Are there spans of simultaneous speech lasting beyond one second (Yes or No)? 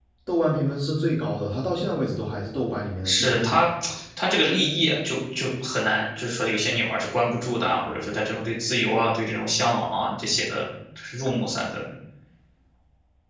No